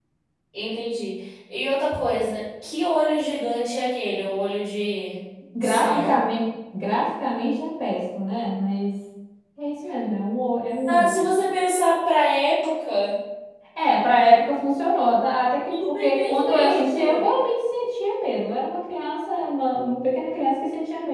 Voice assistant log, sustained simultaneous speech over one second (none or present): present